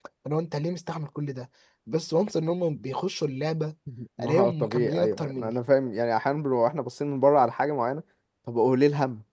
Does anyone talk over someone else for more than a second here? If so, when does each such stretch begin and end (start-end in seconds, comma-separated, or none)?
4.2-5.5